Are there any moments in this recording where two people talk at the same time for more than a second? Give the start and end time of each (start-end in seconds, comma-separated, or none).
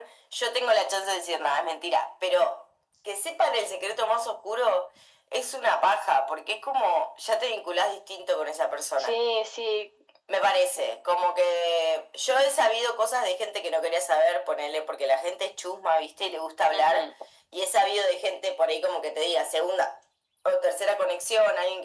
none